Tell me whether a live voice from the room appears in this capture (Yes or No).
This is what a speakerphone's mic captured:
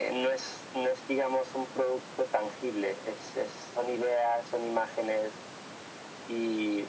No